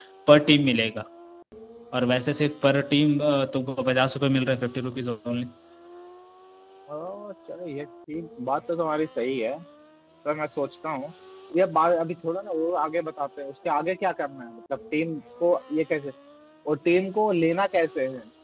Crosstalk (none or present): none